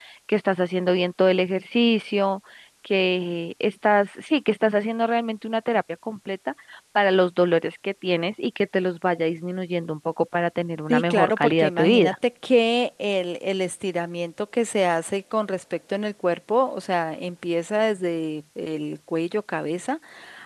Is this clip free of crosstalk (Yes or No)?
No